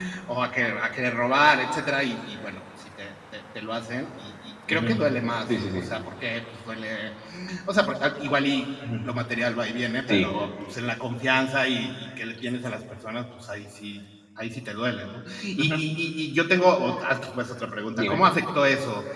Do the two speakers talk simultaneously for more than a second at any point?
No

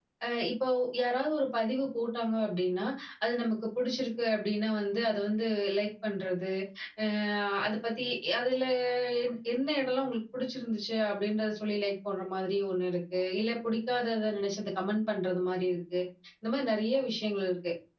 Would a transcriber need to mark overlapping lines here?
No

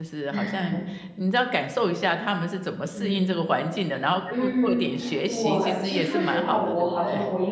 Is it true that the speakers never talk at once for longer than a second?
No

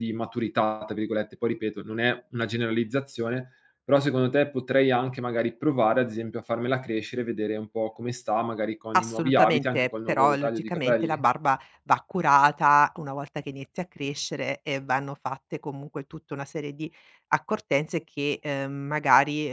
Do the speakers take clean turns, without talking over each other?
No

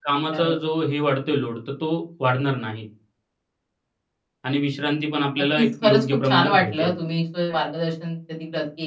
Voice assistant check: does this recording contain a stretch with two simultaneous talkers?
Yes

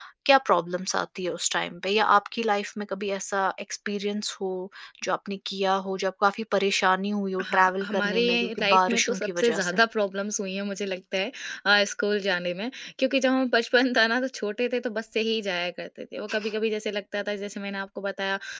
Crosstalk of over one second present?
Yes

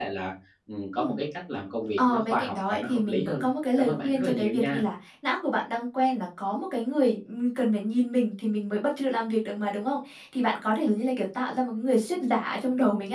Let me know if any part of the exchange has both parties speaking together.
Yes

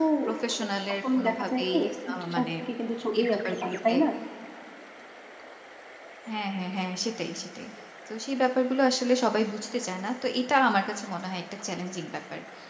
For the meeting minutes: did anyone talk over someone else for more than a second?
Yes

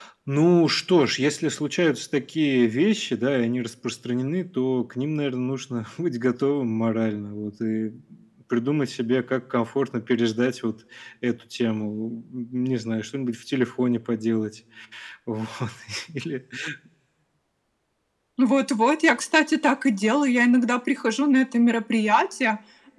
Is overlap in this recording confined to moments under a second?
Yes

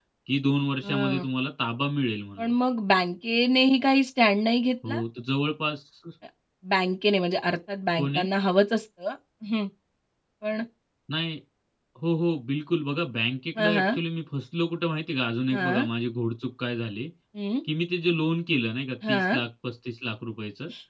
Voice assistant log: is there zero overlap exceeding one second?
Yes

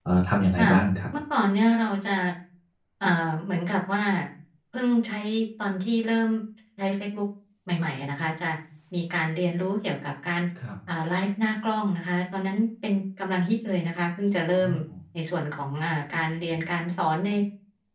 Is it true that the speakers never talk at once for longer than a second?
Yes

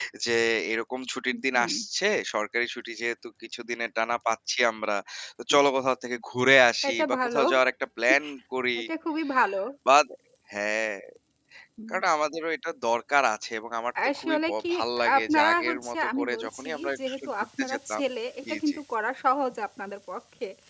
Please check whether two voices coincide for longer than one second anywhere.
Yes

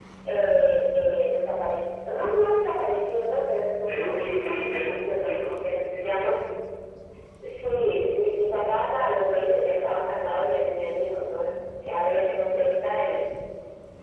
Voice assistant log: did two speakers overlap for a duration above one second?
Yes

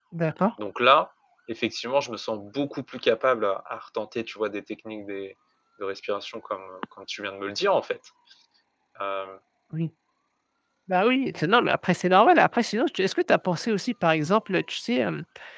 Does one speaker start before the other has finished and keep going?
No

